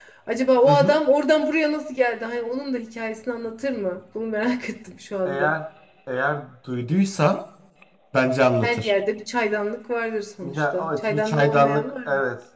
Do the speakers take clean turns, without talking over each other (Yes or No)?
No